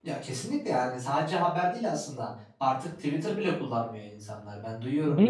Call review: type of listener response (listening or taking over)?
listening